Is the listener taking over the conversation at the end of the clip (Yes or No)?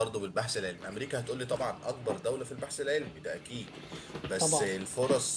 No